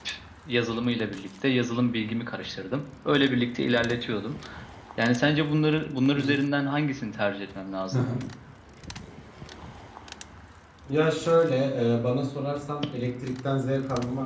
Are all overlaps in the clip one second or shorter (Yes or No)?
Yes